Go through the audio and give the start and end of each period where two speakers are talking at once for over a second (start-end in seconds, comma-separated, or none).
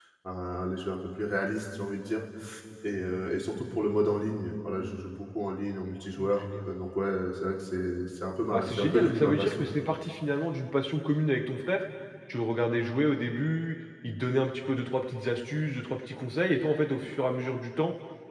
8.5-9.7